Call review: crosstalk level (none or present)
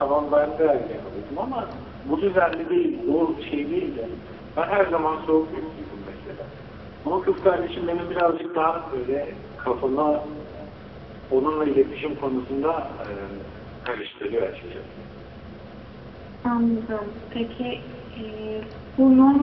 none